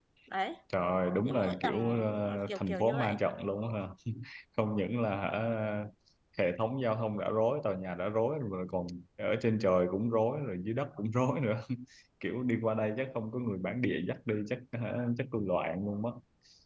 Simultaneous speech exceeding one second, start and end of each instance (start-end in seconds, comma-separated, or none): 1.2-3.2